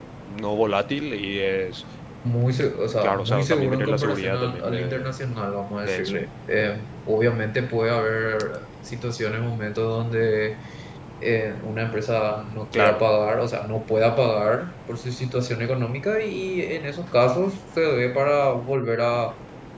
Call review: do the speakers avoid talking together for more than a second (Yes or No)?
No